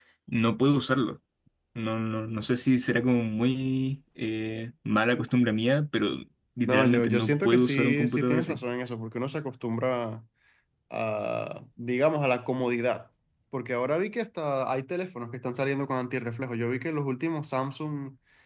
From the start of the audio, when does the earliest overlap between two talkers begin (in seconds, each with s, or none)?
6.6 s